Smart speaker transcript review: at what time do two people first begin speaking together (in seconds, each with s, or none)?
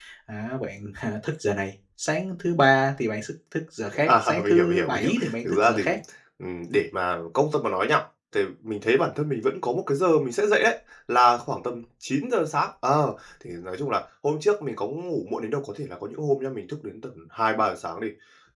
4.1 s